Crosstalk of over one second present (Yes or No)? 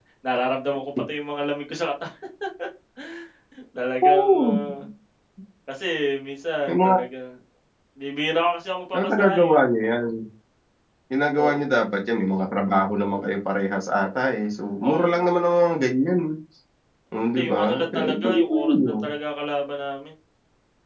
Yes